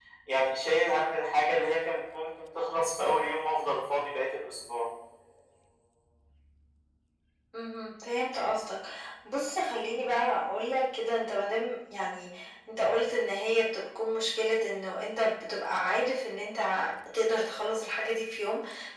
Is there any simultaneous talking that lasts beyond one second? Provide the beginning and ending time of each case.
none

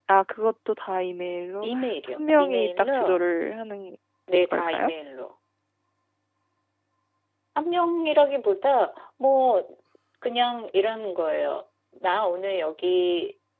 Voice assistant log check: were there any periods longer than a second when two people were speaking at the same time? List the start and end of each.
1.6-2.9

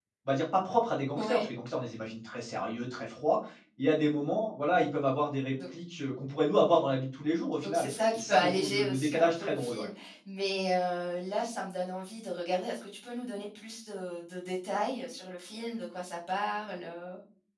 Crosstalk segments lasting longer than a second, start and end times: 7.6-9.9

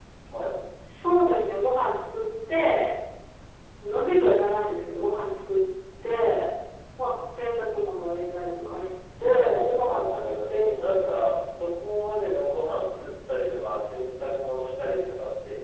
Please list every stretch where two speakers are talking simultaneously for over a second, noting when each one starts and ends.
9.3-11.5

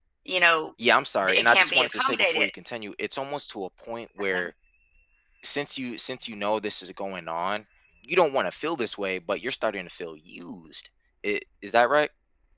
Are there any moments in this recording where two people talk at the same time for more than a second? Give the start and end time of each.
1.3-2.5

